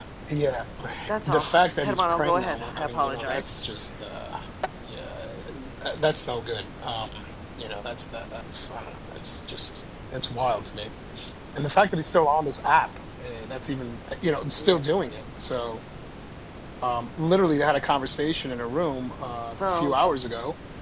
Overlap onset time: 1.3 s

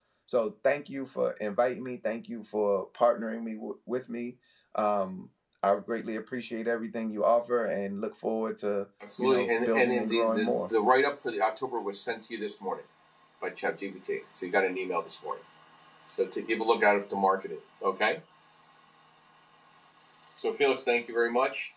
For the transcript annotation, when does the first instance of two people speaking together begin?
9.0 s

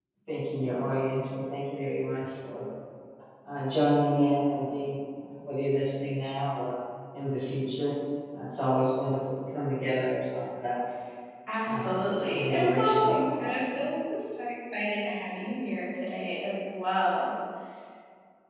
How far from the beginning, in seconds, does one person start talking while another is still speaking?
11.7 s

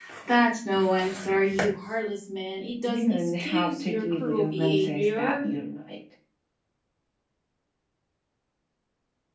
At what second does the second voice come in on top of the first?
2.9 s

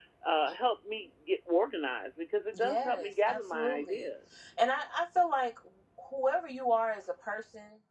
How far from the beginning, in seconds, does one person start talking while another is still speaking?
2.5 s

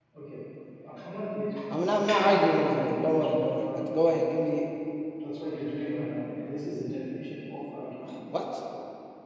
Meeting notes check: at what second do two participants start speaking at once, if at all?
1.7 s

